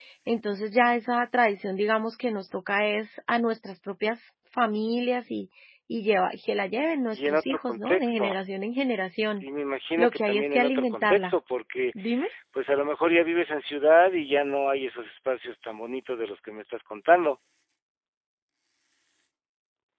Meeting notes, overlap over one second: present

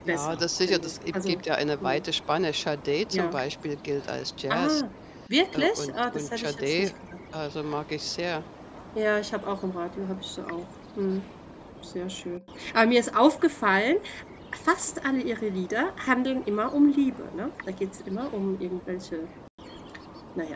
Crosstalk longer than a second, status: present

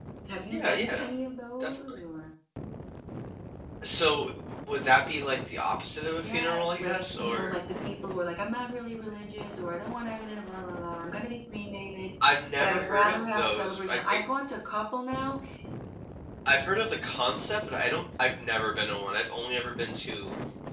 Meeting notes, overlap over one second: present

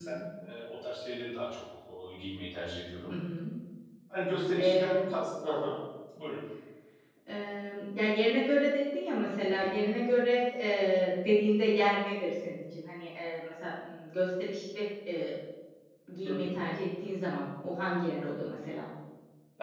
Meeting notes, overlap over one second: none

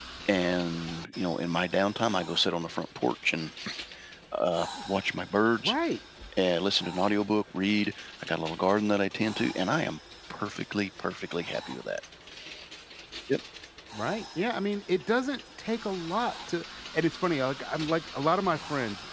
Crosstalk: none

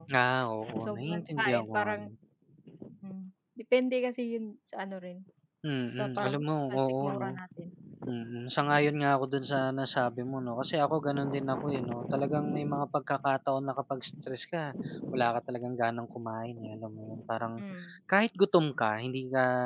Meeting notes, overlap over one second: present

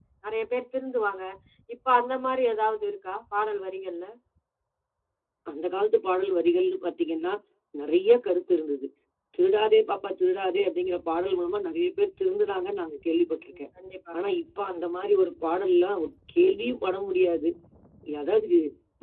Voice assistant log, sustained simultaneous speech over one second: none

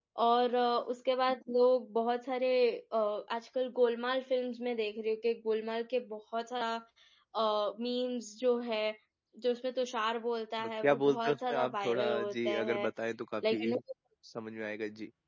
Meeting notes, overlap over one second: present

